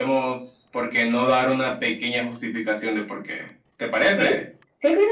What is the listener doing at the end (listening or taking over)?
taking over